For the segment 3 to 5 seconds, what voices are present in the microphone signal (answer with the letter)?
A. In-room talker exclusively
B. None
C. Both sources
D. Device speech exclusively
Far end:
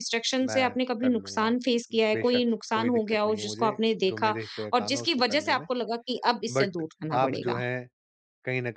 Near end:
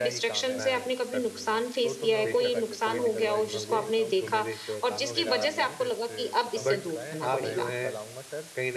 C